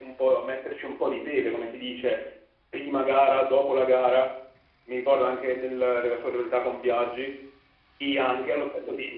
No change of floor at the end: Yes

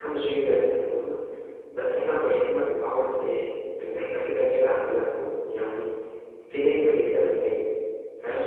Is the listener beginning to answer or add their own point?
Yes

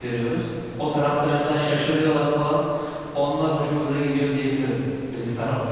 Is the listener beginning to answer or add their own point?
Yes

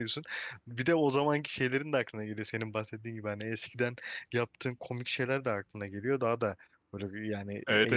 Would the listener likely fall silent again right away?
No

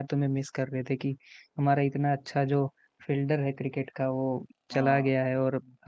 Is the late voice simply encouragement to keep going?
Yes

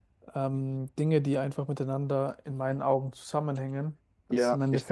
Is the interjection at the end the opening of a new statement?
Yes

